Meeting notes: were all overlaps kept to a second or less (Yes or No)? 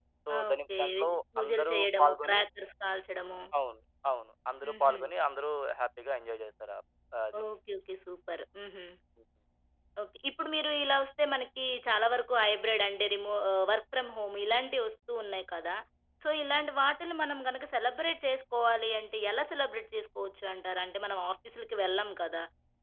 No